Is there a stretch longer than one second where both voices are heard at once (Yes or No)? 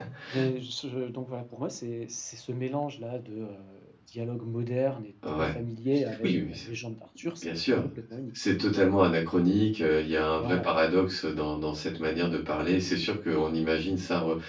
No